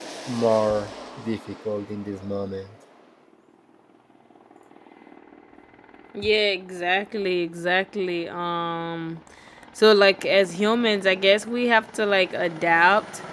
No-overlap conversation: Yes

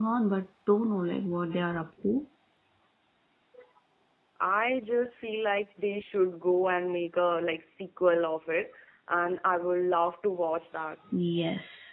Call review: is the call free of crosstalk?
Yes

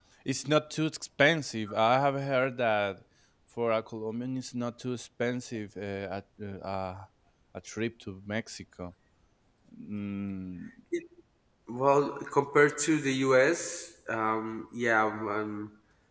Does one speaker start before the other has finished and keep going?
No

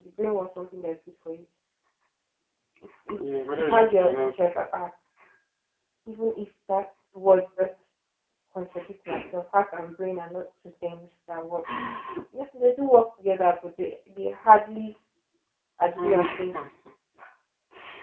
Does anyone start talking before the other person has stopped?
Yes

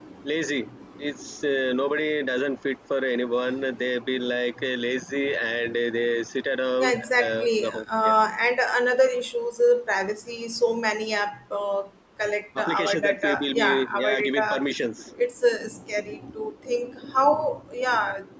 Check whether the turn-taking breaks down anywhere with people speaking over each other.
Yes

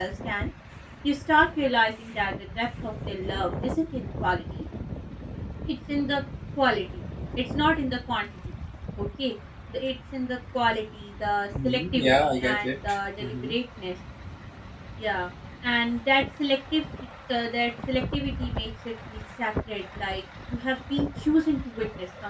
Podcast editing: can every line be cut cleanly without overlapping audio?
No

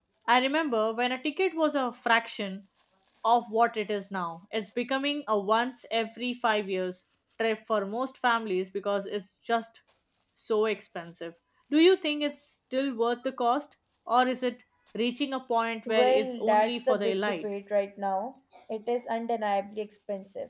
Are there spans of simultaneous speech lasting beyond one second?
Yes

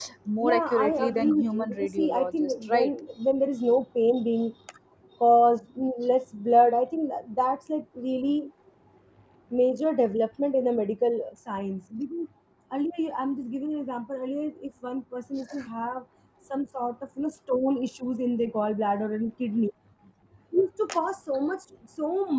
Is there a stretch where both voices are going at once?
Yes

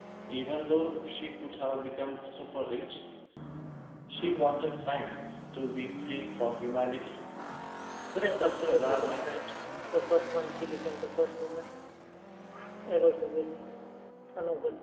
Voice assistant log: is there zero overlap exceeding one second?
No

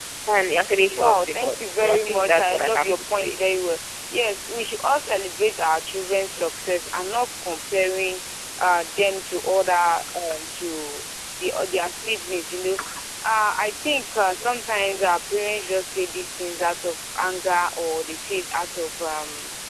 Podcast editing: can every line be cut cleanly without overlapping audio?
No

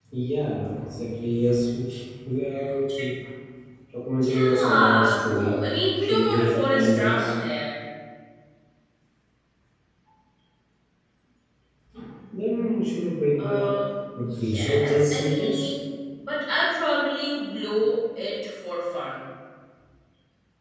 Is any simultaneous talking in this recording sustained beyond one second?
Yes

